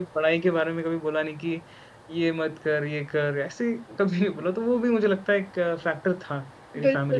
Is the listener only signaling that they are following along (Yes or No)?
No